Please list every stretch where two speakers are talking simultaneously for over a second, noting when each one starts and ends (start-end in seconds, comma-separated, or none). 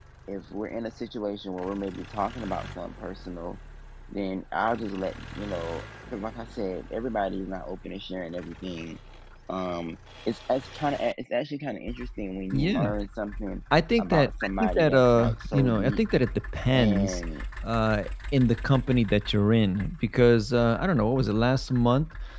14.0-16.0